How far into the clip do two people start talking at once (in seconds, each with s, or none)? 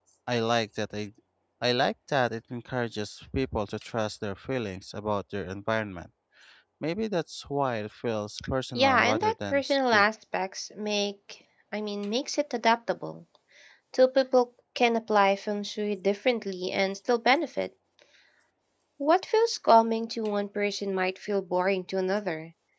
8.8 s